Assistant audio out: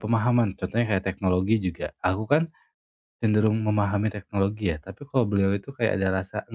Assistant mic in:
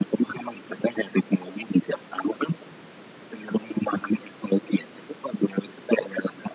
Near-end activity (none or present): none